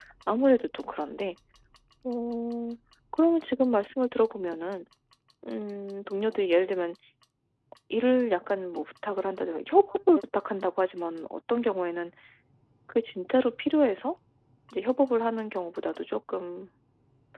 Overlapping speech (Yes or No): No